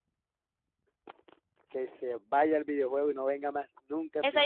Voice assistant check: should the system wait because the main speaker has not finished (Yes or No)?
No